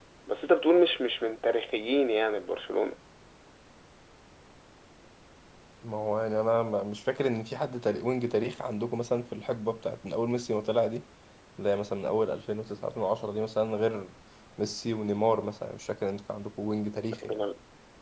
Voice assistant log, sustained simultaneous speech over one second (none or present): none